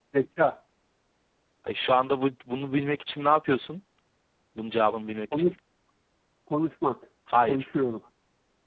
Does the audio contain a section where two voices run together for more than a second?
No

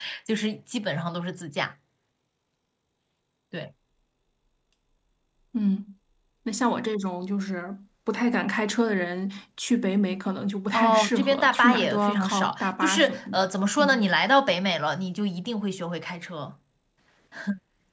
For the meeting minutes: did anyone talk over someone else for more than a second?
Yes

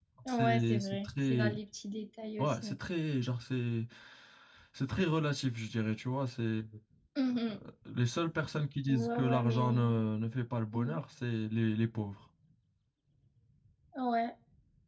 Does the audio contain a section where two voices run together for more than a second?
Yes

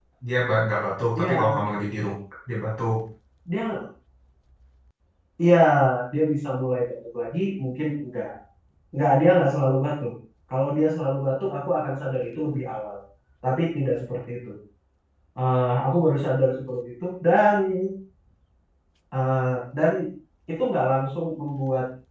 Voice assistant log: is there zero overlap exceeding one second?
Yes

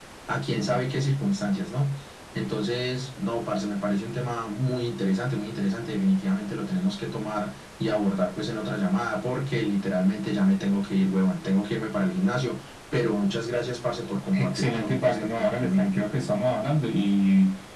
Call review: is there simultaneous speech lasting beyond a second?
Yes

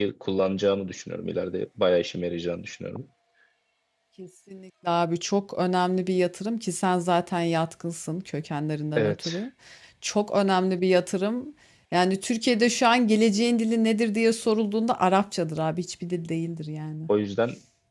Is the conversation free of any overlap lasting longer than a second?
Yes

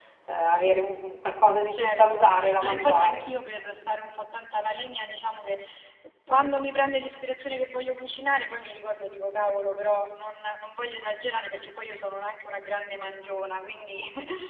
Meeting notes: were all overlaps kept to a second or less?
No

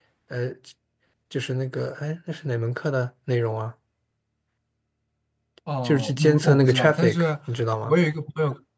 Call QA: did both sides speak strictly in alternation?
No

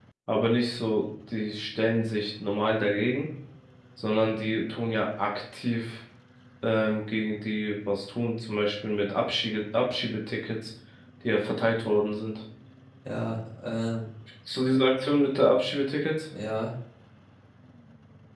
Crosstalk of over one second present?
No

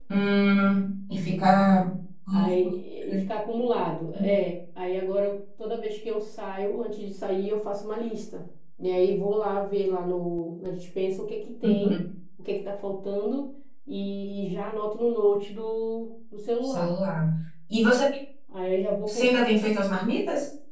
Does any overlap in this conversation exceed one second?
No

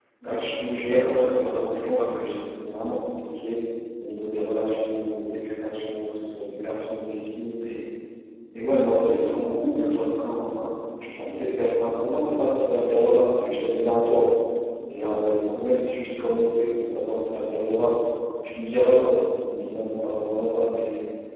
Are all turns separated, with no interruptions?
No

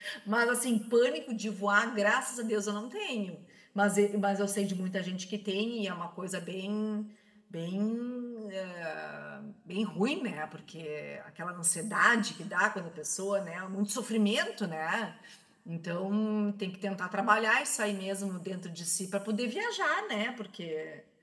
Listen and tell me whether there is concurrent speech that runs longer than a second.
No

